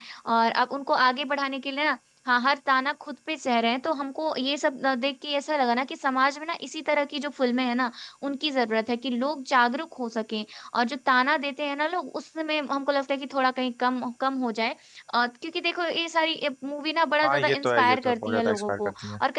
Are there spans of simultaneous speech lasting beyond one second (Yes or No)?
Yes